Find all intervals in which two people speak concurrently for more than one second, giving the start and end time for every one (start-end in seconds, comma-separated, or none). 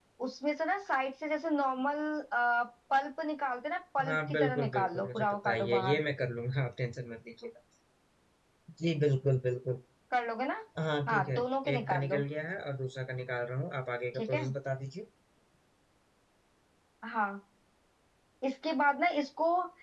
4.1-6.0